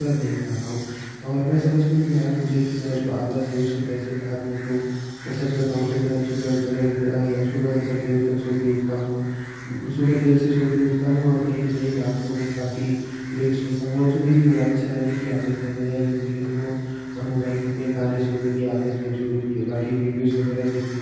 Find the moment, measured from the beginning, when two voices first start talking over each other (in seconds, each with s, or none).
none